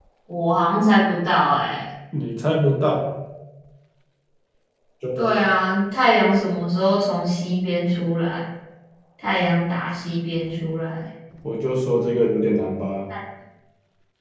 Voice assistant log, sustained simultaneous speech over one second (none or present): none